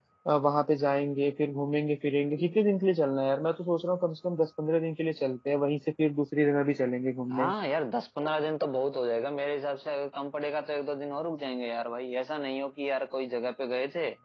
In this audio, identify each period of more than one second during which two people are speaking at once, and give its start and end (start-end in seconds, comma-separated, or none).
none